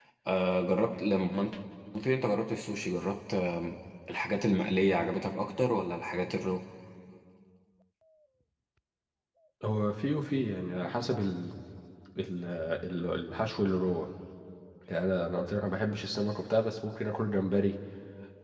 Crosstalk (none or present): none